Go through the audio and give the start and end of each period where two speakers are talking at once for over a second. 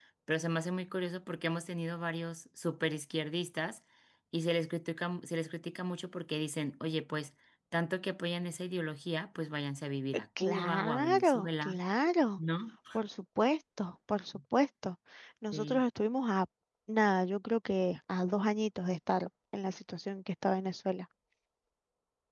10.4-11.8

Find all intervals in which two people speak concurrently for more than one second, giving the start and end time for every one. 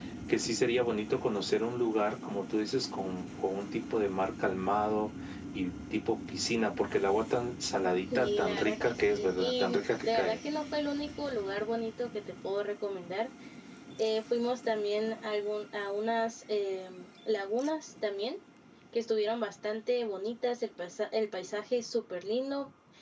8.2-10.3

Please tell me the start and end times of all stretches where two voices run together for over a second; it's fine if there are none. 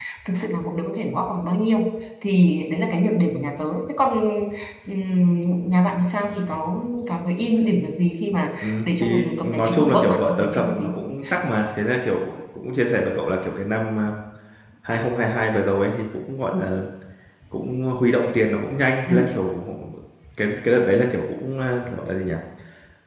8.6-10.9

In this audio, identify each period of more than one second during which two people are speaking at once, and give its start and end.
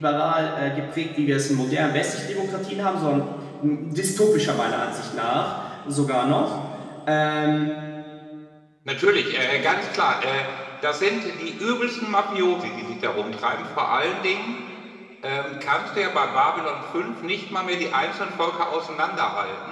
none

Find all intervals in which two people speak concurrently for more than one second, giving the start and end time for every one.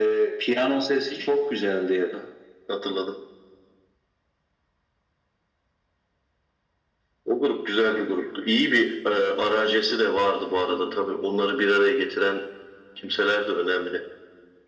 none

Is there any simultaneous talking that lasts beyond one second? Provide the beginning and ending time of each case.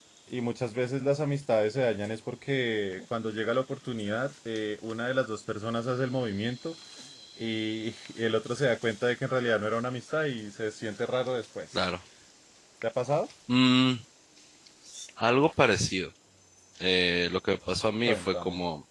none

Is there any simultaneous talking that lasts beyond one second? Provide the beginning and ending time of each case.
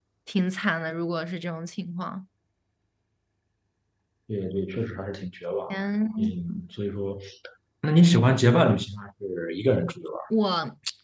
none

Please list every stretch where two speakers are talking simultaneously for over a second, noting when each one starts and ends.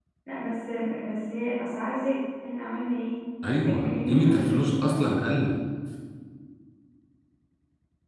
3.5-4.9

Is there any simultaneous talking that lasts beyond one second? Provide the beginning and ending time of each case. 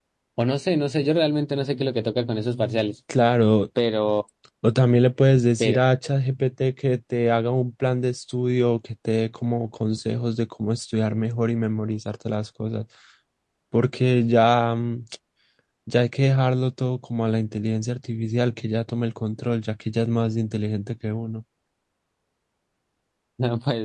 none

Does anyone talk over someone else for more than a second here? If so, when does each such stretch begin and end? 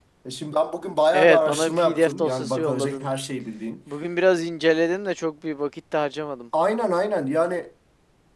1.1-3.1

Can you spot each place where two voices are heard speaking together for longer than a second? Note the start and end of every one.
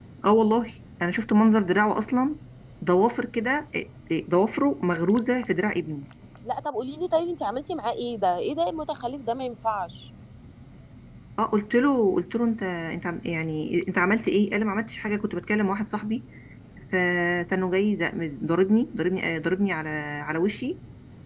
none

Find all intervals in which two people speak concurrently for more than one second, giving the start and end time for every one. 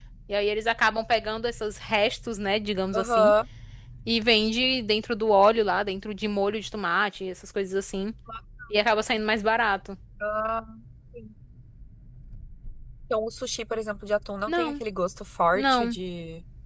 none

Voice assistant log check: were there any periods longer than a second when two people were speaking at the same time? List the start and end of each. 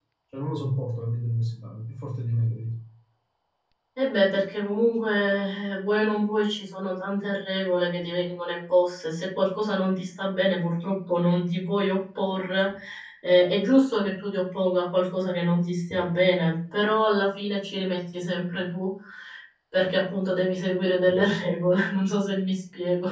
none

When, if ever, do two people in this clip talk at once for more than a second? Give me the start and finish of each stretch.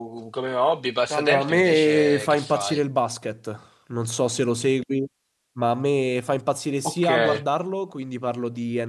1.1-2.8

